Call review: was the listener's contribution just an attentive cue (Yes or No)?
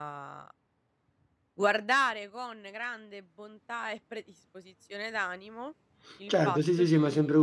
No